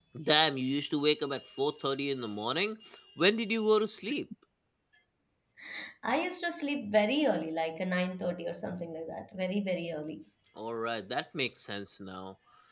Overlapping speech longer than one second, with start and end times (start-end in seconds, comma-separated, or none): none